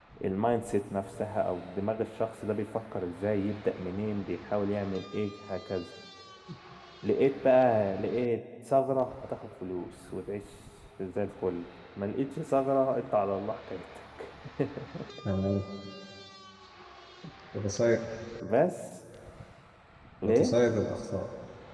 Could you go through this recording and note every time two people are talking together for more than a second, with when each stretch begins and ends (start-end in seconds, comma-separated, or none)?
none